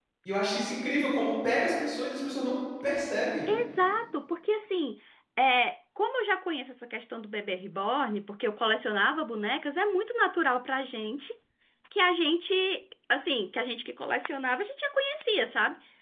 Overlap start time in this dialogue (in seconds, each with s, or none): none